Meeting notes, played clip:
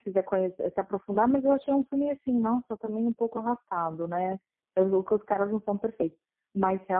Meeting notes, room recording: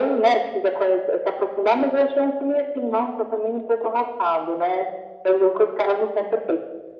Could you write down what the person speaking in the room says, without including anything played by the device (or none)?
none